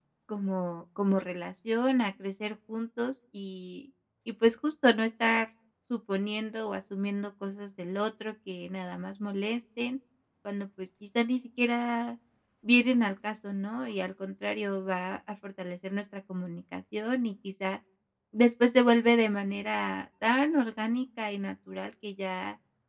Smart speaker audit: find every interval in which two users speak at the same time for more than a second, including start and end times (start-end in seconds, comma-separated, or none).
none